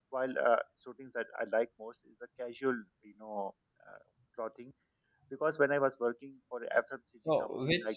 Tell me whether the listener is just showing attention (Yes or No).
No